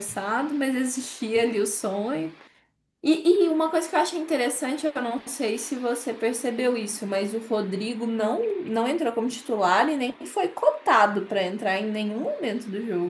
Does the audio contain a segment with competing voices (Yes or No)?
No